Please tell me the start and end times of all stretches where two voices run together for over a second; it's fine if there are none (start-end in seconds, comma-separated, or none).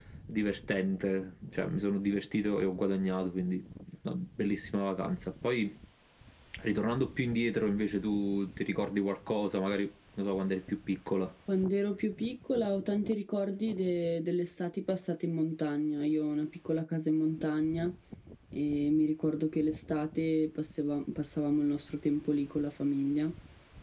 none